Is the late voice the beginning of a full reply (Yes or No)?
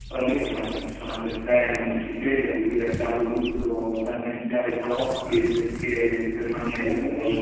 Yes